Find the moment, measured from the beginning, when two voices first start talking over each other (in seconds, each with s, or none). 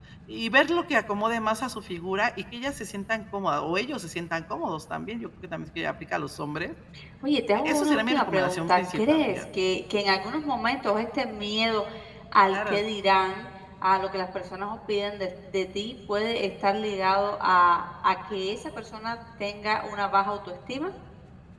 7.5 s